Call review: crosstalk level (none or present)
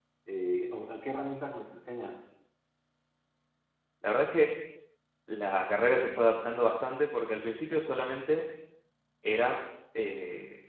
none